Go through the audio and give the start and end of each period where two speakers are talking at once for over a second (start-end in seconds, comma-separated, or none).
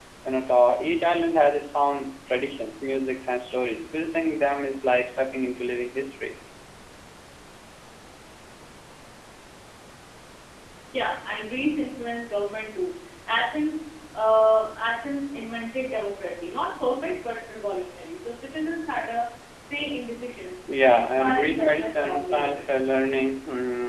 20.9-22.6